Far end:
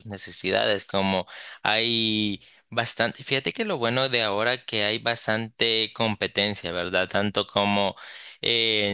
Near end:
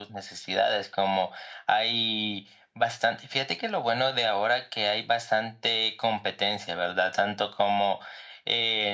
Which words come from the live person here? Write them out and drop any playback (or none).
none